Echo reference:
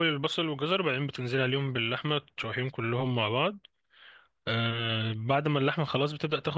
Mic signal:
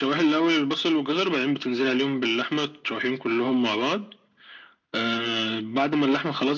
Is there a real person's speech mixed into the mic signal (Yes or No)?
No